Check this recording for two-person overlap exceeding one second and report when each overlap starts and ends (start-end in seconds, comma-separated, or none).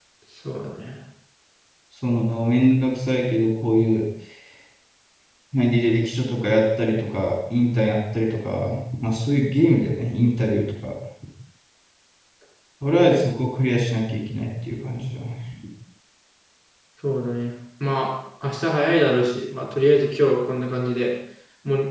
none